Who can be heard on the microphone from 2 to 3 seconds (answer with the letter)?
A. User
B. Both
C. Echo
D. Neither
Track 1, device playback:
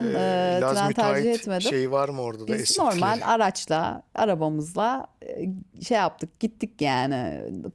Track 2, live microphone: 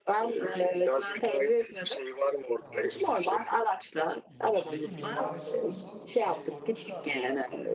B